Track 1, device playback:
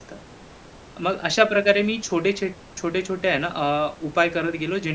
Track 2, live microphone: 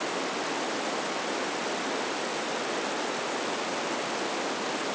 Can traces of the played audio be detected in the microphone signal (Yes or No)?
No